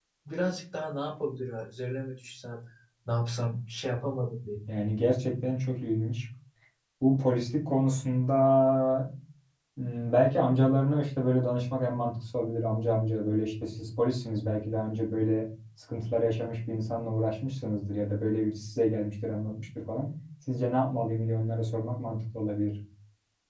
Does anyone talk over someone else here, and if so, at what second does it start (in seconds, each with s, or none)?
none